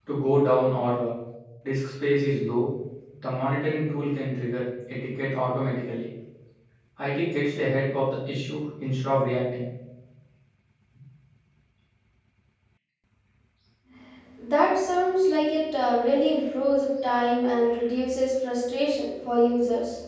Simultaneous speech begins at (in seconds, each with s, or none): none